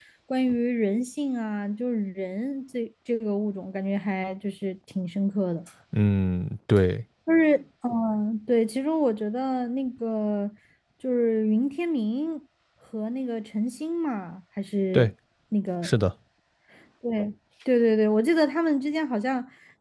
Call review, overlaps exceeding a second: none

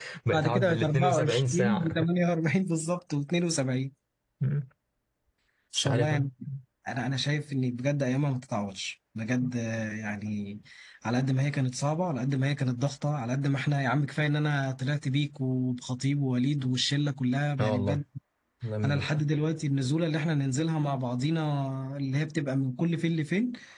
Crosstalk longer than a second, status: present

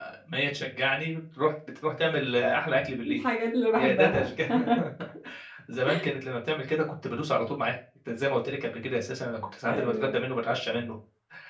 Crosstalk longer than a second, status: none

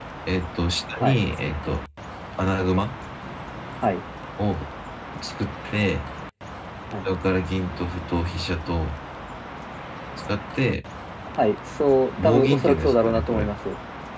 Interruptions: present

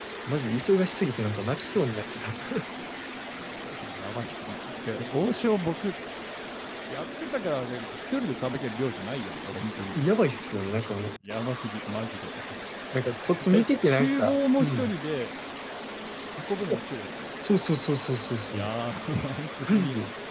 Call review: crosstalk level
present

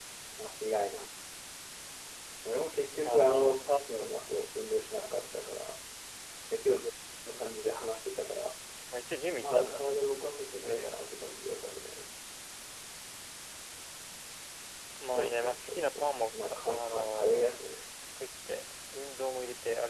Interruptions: present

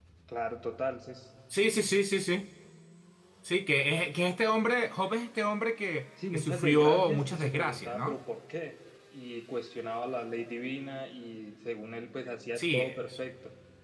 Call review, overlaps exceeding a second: present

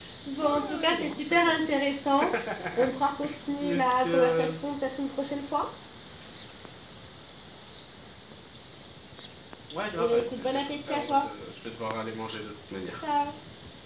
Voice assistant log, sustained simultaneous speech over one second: present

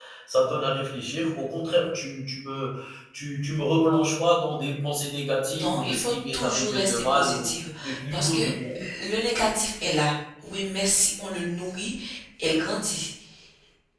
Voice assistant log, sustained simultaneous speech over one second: present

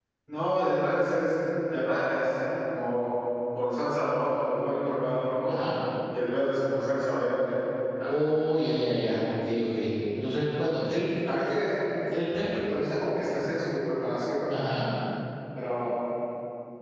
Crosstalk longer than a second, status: none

